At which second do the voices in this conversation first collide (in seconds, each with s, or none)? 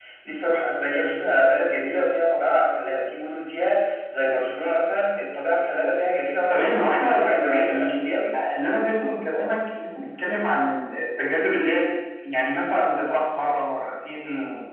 6.5 s